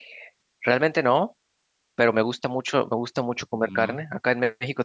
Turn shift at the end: No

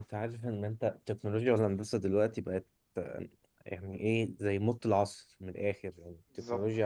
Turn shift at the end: No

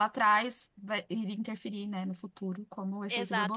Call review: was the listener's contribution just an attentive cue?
No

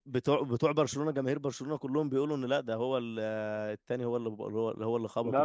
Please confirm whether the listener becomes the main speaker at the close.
Yes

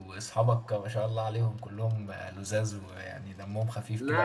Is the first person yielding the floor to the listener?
Yes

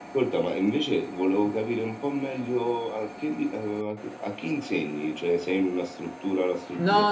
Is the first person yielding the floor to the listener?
Yes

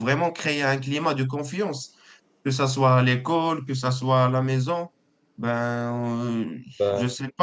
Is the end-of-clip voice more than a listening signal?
No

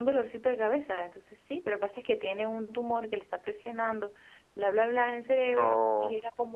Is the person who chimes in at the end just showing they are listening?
Yes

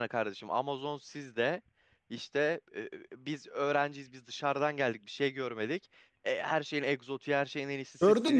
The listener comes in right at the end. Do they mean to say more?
Yes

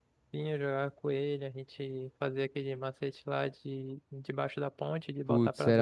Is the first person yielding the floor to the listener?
Yes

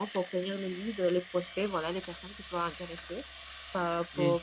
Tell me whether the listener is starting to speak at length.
No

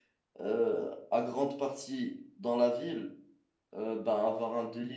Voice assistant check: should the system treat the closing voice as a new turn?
No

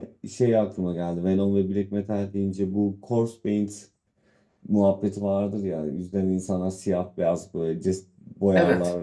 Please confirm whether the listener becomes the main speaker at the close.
No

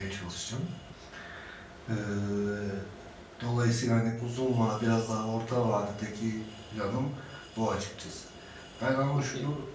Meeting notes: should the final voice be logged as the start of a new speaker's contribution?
No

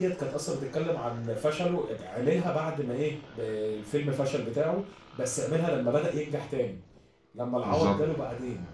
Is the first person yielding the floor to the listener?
No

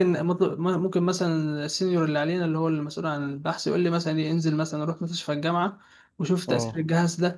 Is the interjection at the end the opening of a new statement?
No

